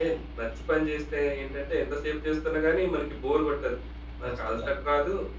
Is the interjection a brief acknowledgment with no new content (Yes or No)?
Yes